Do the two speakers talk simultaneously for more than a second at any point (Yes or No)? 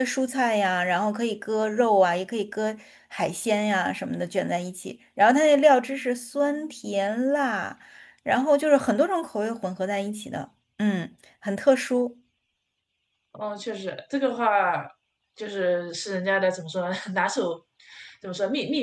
No